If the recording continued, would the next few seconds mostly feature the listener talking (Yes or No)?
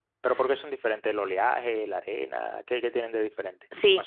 Yes